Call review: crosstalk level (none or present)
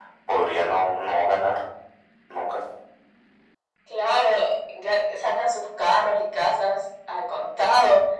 none